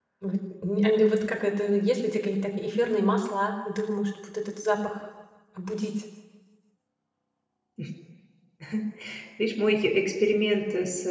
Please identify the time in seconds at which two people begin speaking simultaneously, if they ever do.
none

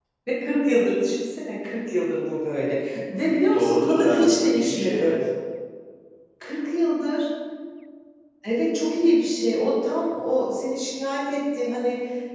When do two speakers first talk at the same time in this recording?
3.5 s

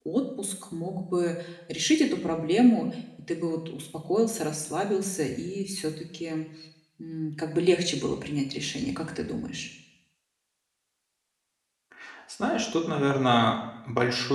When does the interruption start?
none

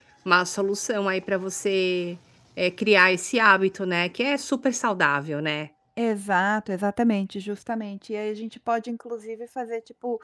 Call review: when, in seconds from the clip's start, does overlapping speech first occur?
none

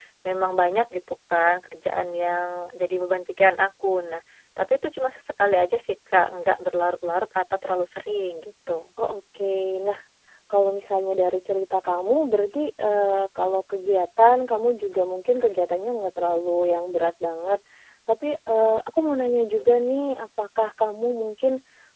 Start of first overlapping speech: none

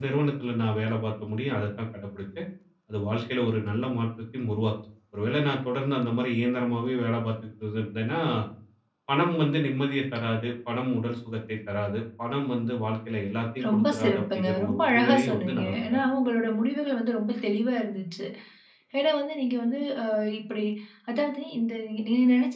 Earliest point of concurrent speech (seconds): 13.6 s

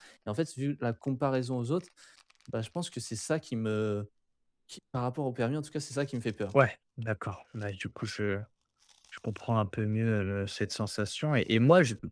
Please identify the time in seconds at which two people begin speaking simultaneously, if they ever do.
none

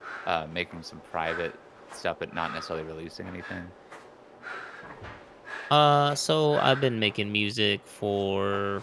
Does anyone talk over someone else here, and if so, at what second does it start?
none

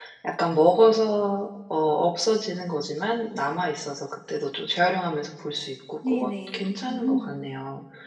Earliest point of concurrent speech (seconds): 6.0 s

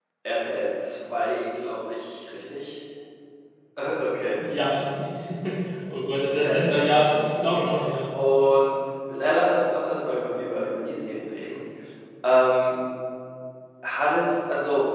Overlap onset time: 6.4 s

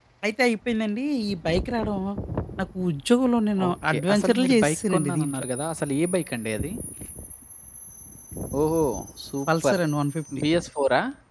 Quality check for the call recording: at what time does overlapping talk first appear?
3.6 s

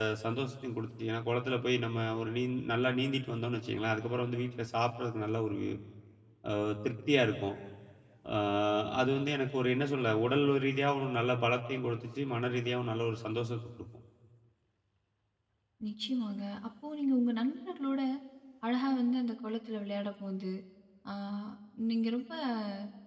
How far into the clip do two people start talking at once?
none

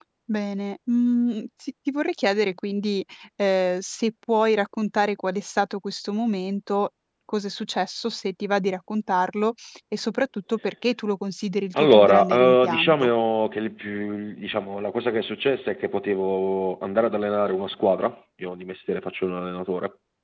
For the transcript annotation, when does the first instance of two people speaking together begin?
11.7 s

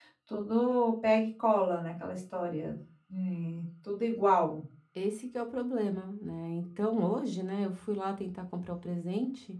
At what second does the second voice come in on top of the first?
none

